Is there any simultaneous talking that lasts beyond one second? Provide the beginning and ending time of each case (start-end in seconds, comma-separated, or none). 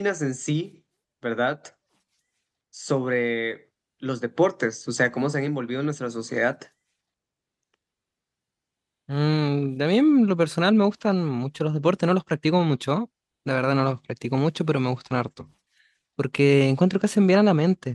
none